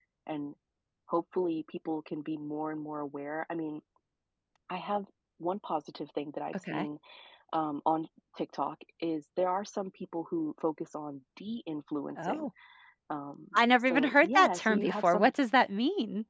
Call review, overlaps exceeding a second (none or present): present